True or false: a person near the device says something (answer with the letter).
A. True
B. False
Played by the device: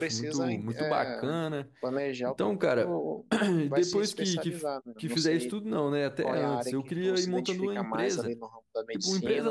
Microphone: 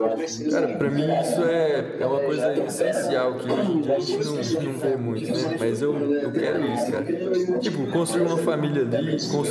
A